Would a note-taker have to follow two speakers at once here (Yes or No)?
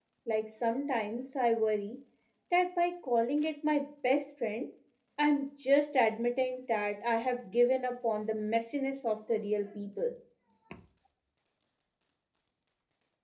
No